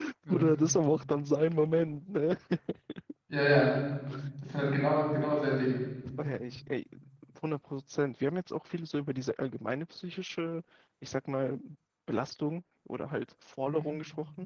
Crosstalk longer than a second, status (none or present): none